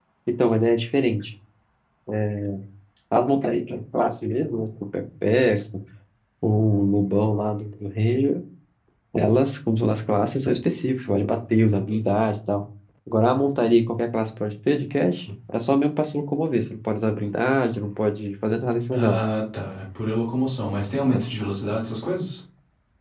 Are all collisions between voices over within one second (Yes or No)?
Yes